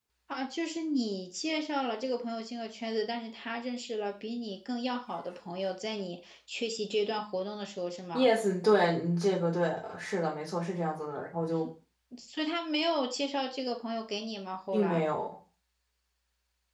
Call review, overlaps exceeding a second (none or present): none